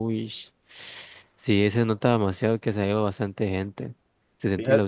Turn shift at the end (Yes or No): Yes